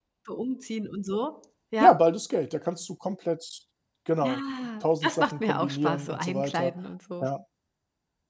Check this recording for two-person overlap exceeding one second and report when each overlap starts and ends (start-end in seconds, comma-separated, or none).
4.8-6.7